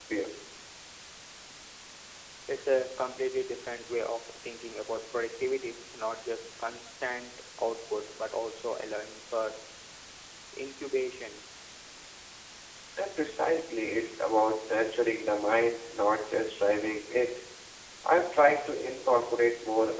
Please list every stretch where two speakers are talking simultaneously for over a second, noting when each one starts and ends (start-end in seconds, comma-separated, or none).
none